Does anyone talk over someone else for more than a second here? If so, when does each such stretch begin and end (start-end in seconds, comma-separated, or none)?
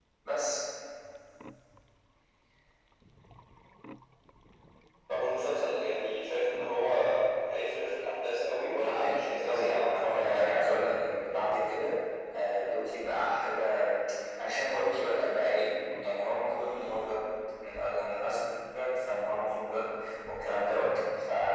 8.8-10.6